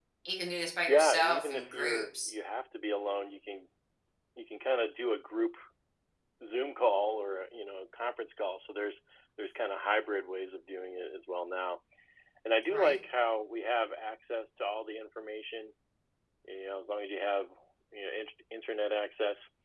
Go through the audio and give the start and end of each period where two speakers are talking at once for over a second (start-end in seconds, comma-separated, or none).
0.9-2.3